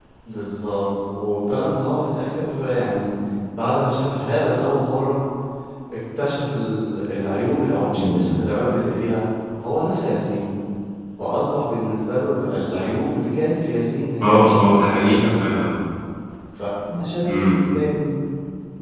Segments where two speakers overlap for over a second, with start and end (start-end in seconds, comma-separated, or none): 14.2-15.4